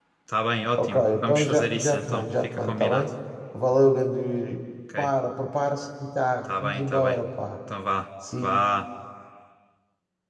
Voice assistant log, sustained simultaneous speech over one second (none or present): present